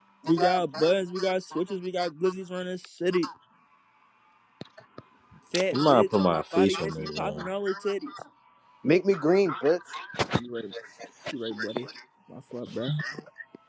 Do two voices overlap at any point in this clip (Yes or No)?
Yes